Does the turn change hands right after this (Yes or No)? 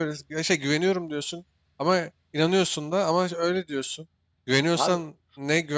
No